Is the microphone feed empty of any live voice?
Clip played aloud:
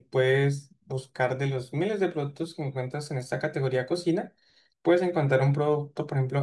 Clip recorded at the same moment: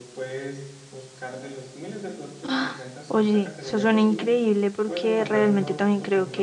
No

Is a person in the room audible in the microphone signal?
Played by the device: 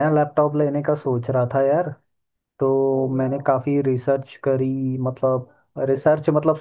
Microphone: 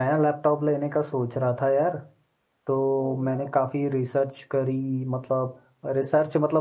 No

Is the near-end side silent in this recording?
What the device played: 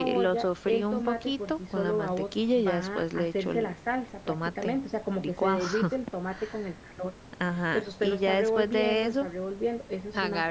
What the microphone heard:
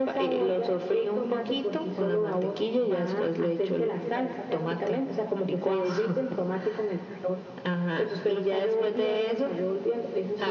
No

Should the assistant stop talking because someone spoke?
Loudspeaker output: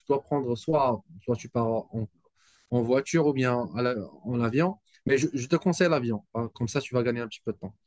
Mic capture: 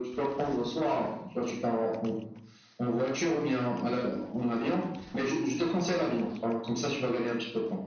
No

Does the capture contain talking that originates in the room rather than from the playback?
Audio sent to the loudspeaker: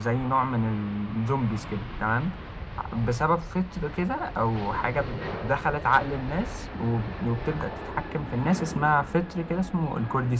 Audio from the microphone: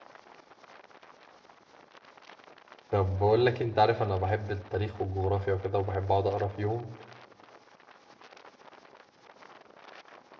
Yes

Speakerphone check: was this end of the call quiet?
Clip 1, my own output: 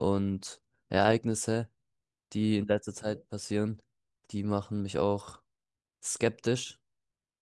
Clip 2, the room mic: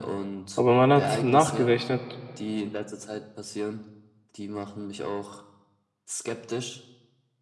No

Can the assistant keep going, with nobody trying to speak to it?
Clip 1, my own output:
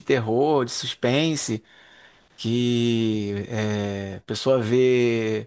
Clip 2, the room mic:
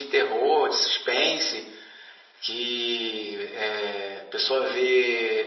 Yes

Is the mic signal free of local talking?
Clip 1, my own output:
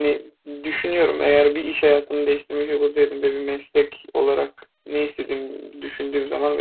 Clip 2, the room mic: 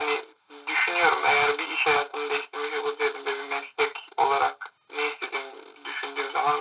Yes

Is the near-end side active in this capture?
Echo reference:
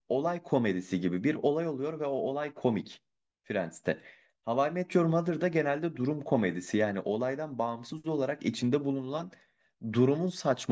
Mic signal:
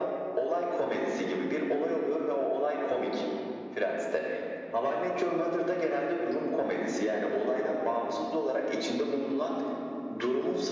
No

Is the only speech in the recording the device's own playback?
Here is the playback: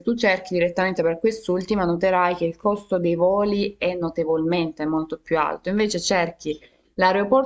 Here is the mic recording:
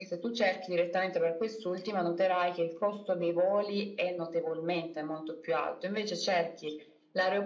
Yes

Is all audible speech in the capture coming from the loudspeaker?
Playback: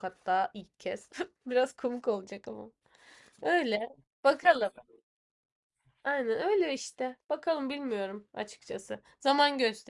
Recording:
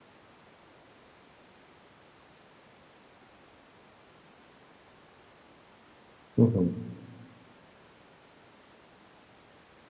No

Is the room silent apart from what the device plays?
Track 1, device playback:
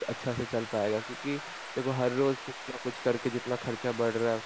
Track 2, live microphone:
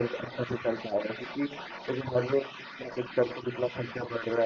Yes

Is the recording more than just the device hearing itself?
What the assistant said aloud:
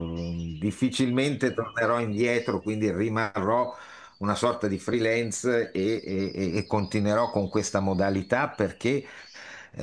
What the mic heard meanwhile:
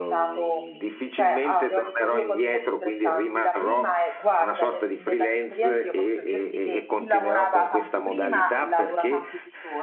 Yes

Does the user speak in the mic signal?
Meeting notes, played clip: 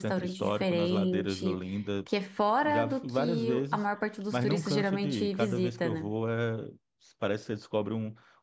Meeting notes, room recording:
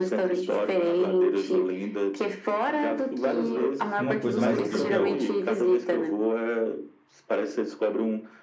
Yes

